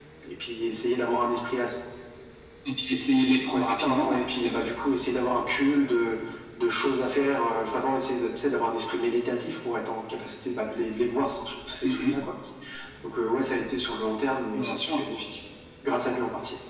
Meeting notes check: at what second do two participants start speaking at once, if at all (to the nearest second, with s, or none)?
3 s